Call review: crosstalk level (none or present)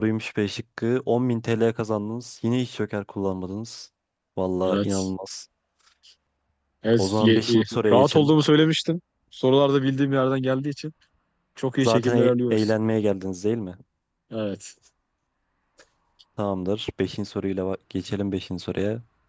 present